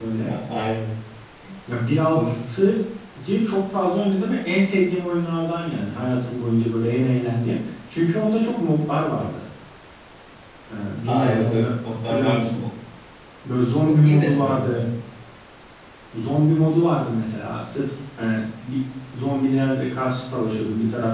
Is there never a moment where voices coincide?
No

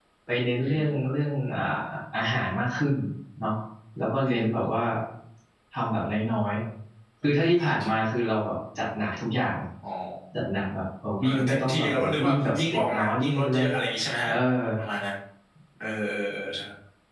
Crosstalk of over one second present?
Yes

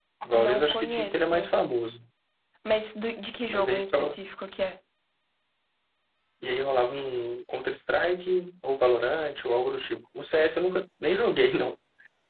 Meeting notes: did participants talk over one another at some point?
Yes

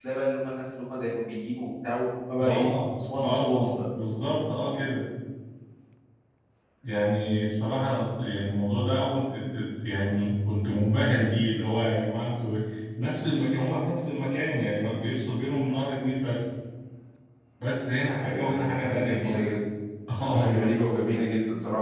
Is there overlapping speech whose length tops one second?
Yes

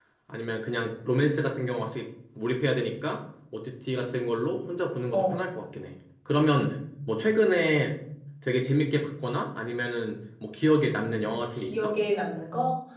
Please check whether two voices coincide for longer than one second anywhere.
No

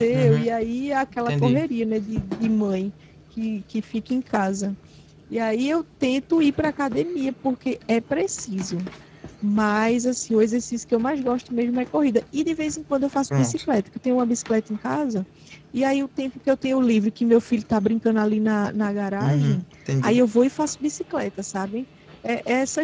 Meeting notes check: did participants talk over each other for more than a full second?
No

